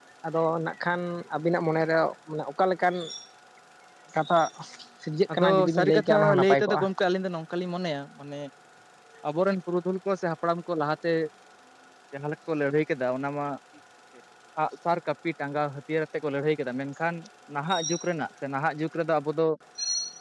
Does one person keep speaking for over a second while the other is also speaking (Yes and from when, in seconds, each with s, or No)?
Yes, from 5.3 s